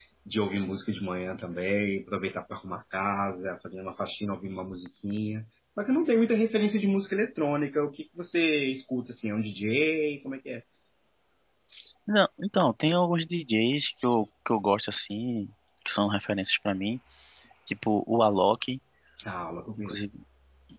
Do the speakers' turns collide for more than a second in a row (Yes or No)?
No